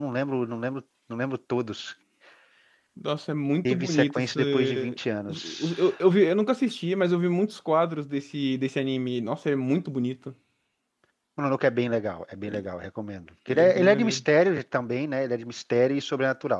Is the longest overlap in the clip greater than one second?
Yes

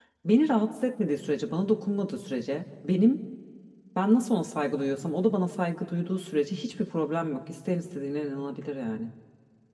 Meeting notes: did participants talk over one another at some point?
No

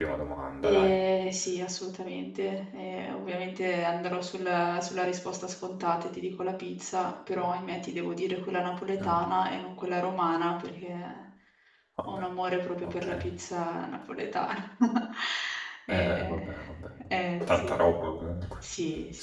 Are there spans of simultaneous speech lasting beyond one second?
No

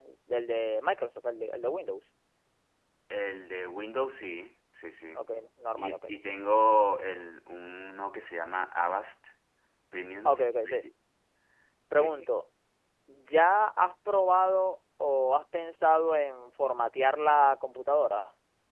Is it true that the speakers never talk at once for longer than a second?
Yes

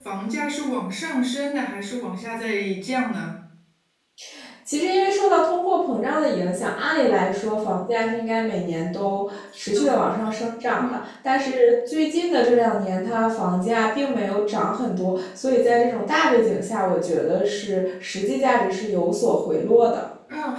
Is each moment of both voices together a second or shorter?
Yes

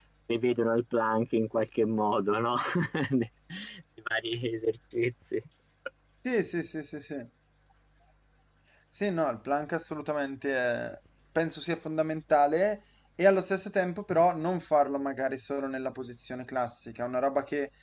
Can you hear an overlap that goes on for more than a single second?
No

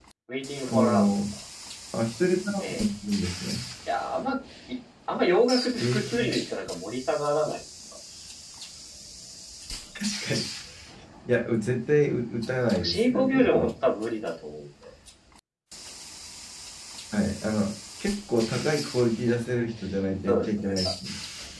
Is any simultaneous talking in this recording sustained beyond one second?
Yes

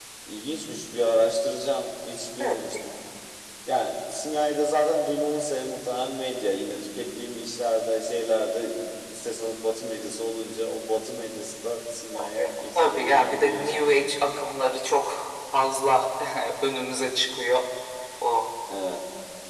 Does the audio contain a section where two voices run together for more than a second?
Yes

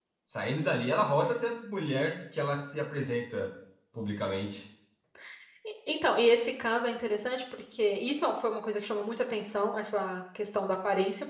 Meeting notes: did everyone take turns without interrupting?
Yes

